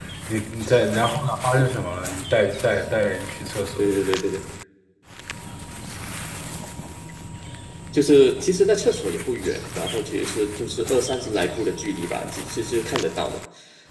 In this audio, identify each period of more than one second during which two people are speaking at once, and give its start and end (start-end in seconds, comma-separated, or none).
none